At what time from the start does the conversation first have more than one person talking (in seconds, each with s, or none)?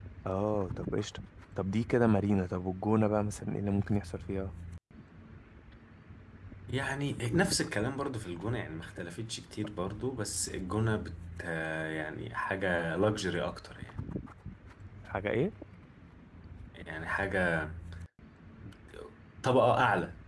none